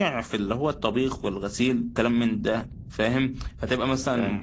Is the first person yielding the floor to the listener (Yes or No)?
No